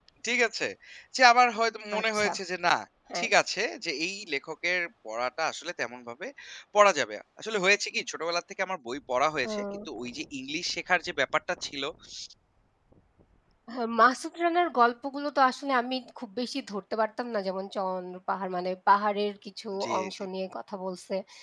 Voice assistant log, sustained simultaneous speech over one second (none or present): none